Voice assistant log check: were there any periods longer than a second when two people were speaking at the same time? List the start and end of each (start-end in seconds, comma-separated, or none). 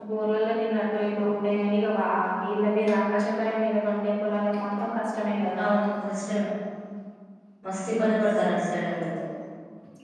none